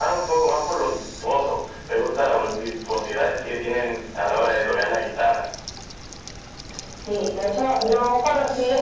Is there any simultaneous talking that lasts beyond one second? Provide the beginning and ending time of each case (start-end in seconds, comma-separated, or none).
none